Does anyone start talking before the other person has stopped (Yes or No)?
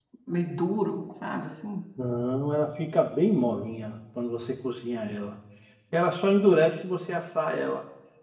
No